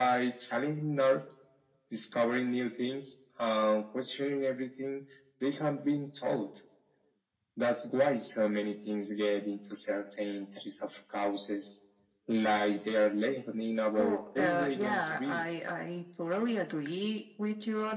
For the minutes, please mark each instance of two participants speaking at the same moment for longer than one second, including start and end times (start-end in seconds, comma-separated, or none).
13.9-15.4